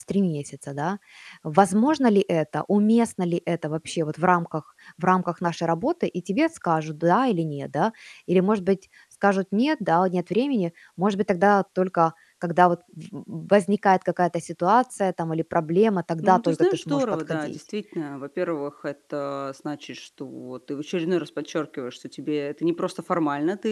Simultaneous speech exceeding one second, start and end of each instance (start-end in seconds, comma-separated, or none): 16.2-17.6